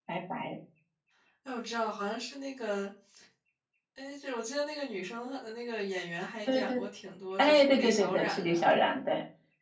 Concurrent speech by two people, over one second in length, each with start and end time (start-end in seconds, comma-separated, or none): 7.4-8.6